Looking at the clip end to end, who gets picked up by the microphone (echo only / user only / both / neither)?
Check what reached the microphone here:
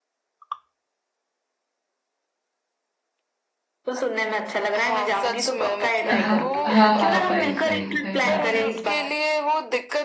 both